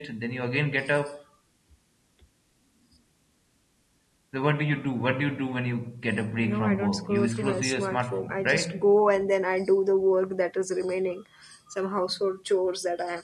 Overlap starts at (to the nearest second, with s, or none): 6 s